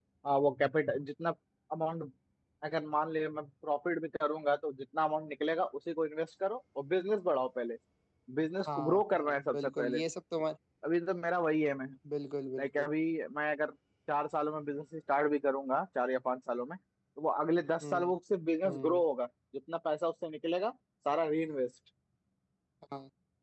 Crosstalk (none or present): present